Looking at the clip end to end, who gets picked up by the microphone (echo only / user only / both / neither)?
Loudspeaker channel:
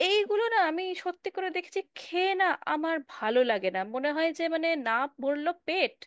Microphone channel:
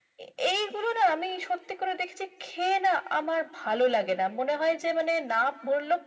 echo only